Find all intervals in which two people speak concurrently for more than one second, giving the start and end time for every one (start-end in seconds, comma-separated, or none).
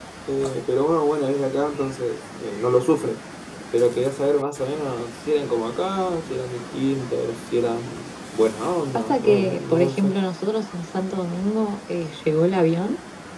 8.9-10.1